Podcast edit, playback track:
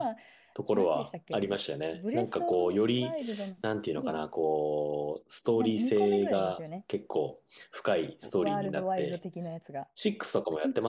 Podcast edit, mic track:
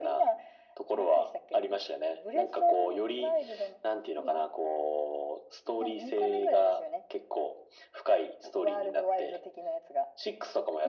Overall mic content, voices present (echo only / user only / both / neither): echo only